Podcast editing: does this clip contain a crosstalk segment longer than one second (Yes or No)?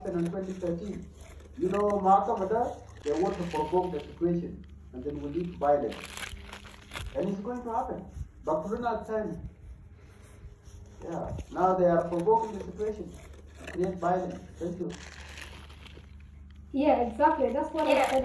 No